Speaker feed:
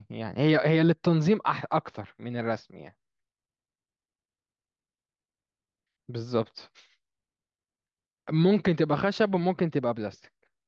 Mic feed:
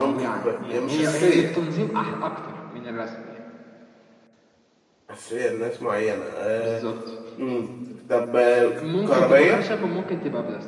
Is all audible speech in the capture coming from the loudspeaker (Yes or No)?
No